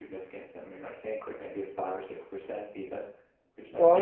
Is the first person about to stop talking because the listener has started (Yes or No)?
Yes